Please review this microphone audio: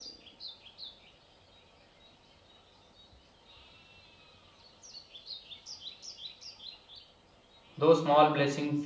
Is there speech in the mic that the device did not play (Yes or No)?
Yes